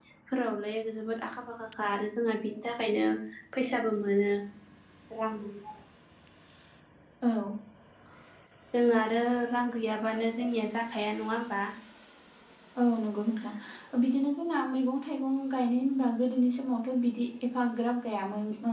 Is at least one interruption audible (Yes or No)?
No